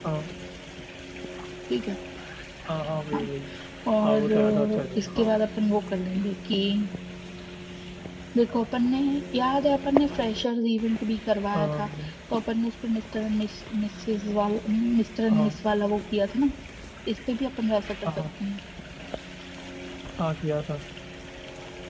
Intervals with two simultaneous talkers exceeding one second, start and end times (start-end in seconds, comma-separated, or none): 4.0-5.3